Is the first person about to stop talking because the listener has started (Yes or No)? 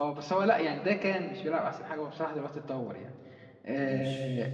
No